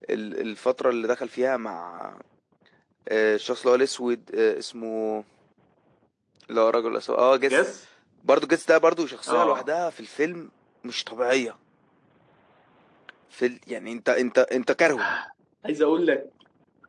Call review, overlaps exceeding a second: none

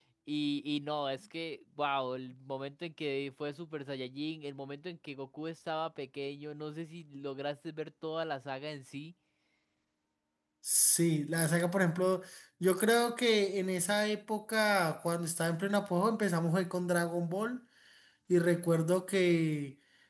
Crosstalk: none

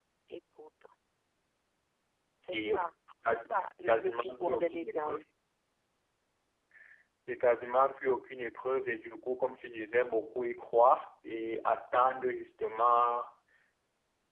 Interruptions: present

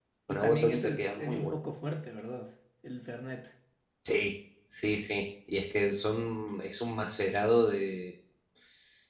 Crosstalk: present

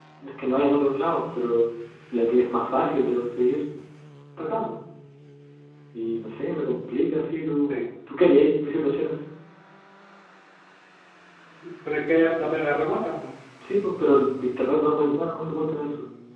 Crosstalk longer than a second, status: none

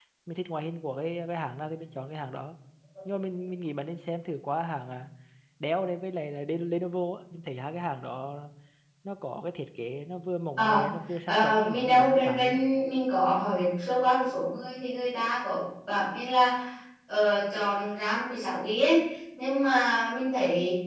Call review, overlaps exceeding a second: present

